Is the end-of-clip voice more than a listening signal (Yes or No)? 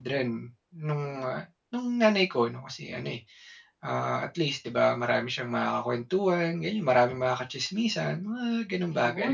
Yes